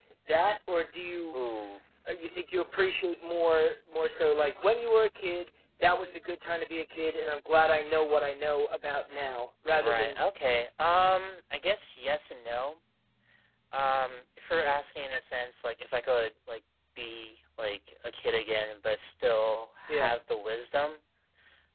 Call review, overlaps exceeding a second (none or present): none